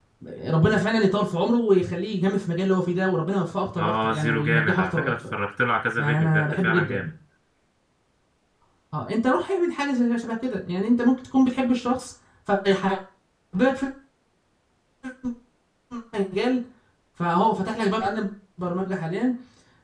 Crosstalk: present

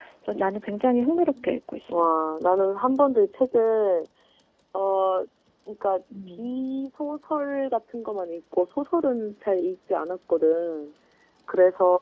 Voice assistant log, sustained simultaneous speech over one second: none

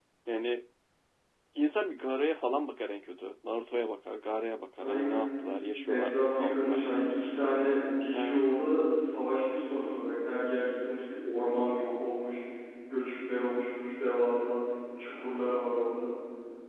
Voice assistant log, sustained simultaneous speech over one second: present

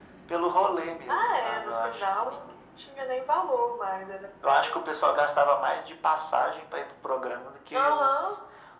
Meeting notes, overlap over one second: present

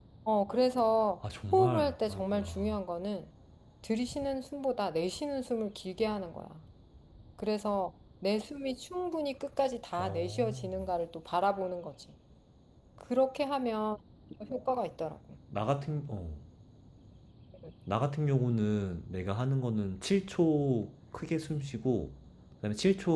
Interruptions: present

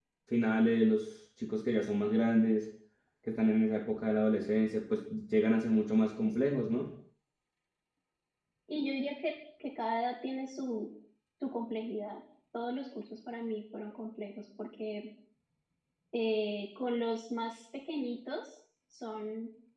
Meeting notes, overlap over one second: none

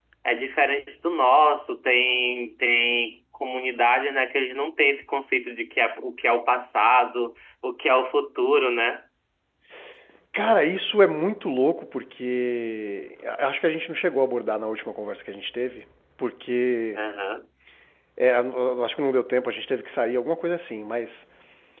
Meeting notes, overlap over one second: none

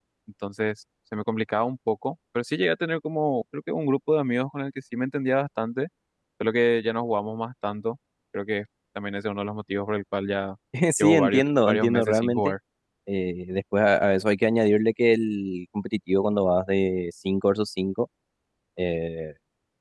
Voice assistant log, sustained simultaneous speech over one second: present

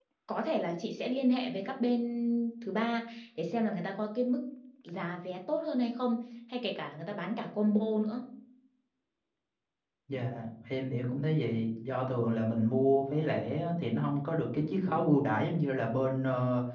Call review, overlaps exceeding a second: none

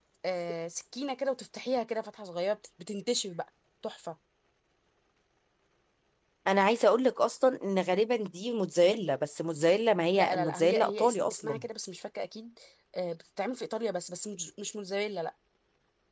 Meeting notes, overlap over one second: present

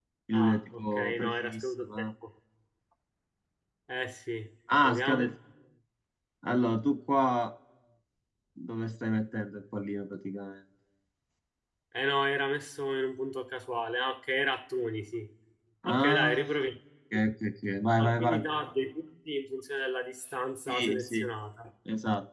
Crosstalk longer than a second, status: present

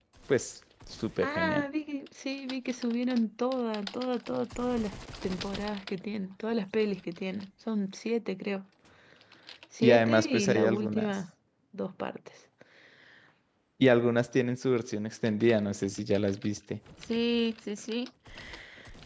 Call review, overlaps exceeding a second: present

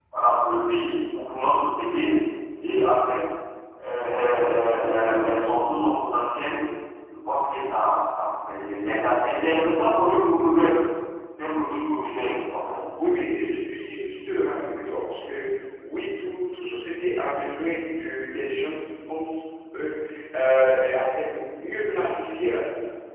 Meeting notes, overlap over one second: none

